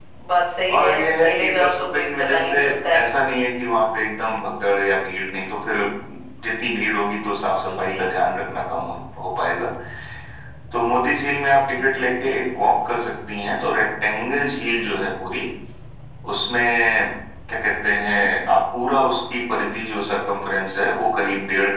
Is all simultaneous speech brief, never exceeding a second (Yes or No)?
No